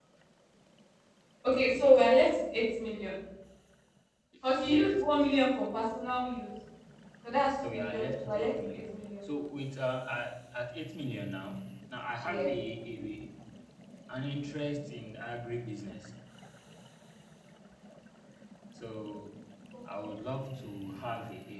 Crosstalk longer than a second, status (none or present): present